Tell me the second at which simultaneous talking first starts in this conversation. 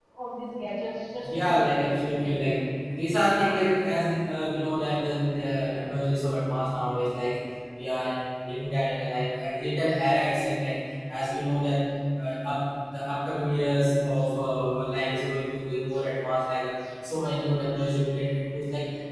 1 s

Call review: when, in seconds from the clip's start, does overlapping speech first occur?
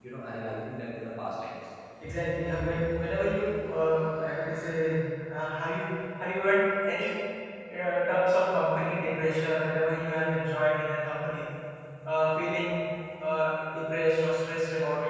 none

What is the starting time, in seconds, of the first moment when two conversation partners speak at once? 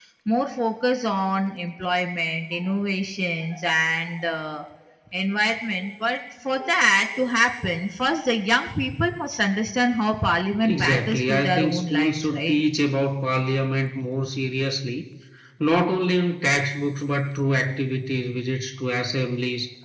11 s

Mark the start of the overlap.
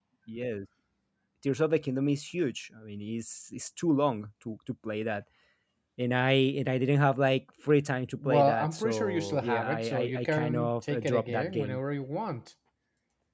8 s

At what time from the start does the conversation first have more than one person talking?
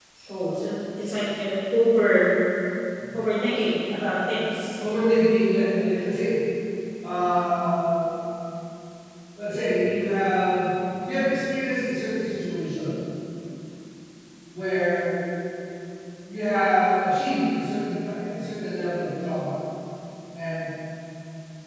none

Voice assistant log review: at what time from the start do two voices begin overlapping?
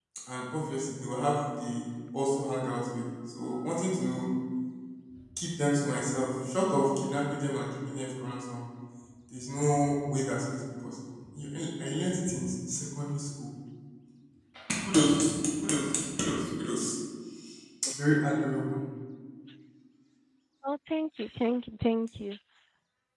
none

